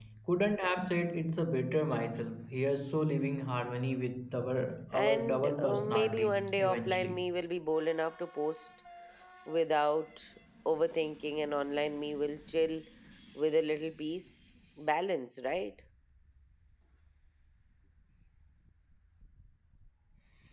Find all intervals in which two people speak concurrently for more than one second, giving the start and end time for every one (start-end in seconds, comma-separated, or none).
4.9-7.3